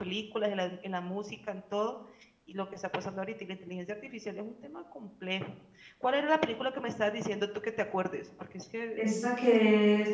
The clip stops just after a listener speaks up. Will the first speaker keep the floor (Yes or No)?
No